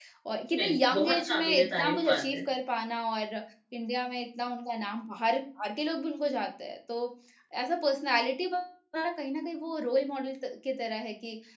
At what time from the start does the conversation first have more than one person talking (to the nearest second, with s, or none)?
1 s